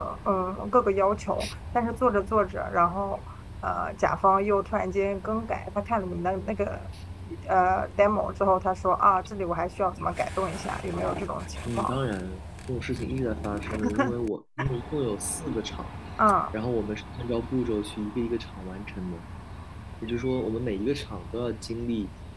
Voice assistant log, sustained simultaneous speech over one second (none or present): none